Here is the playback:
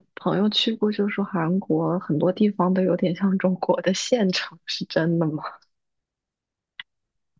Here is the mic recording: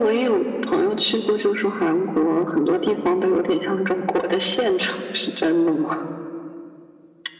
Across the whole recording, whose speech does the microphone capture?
echo only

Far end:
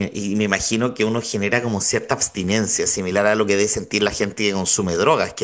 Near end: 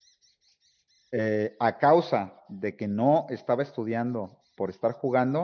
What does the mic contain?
user only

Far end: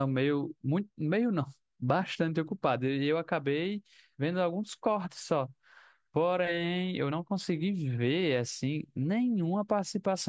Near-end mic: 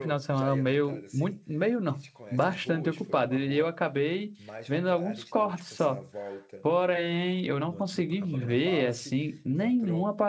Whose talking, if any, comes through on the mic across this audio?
both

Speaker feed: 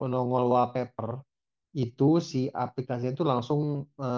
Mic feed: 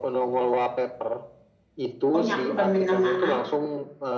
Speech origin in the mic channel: both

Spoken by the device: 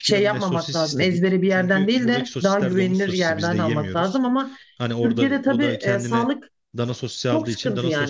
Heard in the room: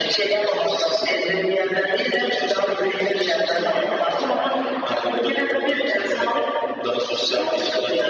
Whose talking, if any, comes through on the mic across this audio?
echo only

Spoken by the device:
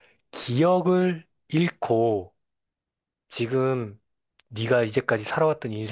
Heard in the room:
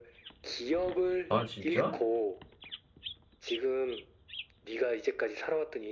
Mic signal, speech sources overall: both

